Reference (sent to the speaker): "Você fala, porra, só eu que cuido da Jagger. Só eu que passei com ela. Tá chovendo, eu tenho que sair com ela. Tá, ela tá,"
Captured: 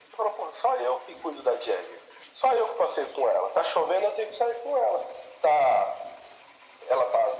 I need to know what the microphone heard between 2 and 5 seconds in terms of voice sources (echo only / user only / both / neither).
echo only